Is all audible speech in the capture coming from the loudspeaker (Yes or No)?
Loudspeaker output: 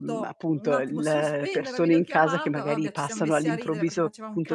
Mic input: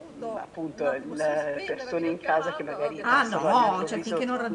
No